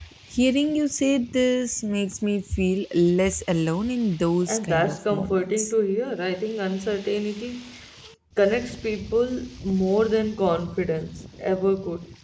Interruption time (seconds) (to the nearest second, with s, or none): 4 s